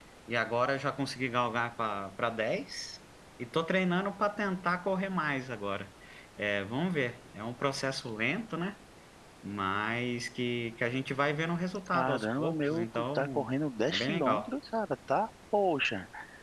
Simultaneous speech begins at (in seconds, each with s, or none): 11.9 s